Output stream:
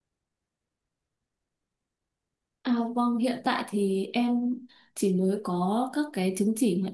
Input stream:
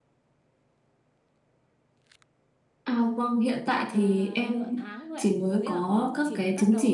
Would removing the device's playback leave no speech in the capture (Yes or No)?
No